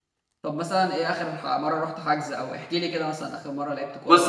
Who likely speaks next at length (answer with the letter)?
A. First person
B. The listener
B